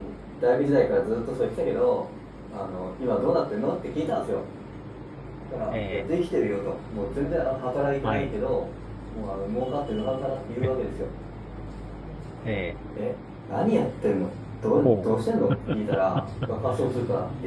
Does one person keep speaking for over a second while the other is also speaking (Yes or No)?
No